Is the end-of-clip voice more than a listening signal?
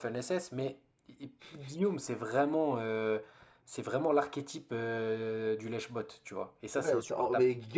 Yes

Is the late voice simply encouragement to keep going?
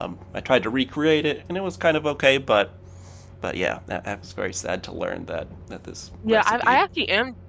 No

